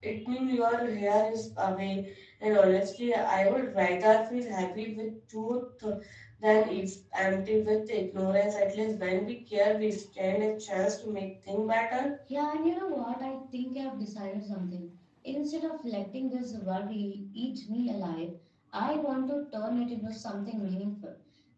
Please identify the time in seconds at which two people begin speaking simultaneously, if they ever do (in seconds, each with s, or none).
none